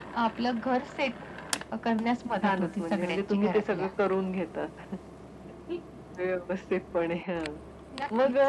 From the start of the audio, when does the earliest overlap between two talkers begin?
2.4 s

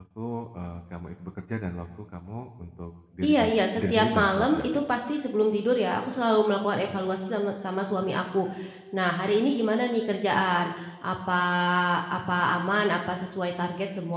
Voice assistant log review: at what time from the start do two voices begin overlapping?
3.2 s

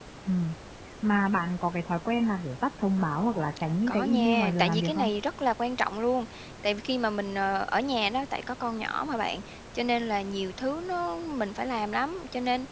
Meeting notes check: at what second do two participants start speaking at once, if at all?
3.9 s

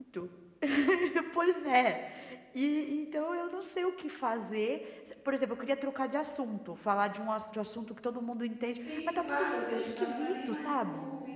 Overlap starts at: 8.8 s

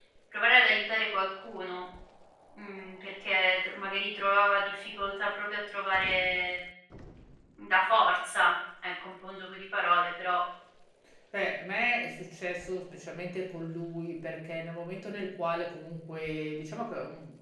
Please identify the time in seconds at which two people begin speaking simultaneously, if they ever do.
none

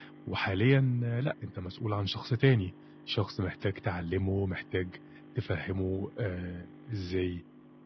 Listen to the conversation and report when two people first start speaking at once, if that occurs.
none

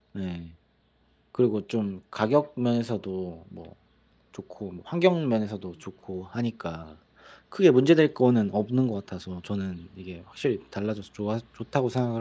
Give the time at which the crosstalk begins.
none

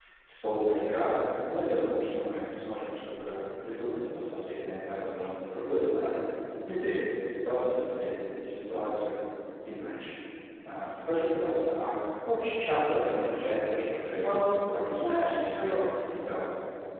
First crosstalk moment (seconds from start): 14.2 s

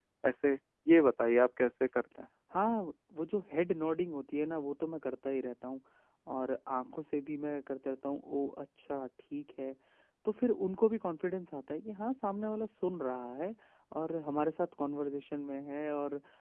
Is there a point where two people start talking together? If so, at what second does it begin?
none

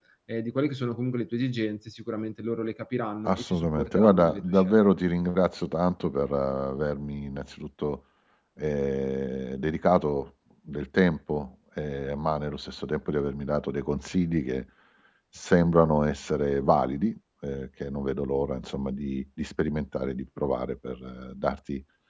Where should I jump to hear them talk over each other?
3.2 s

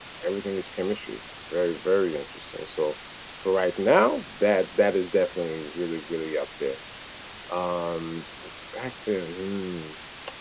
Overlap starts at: none

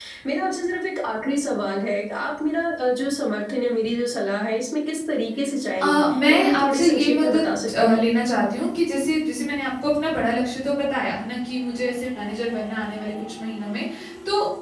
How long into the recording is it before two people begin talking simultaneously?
5.8 s

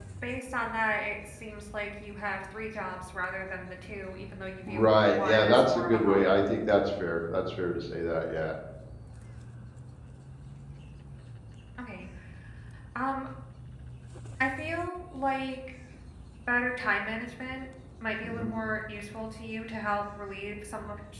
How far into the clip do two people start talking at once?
4.7 s

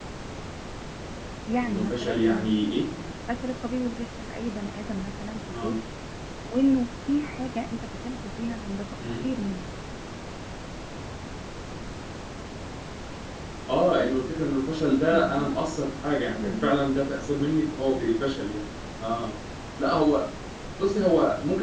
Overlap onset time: 1.6 s

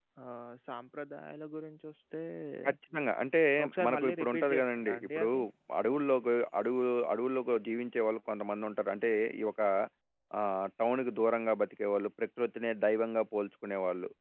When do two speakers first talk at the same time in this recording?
3.9 s

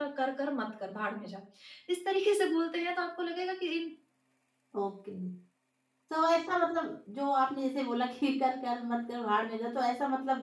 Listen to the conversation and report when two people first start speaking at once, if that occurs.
none

